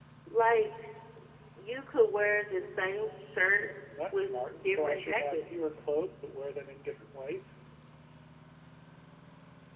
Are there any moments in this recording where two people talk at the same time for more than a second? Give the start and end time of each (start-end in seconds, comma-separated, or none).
4.1-5.5